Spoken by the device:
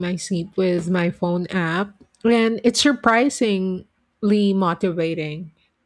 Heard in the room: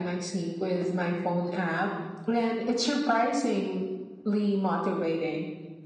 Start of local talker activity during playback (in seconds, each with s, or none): none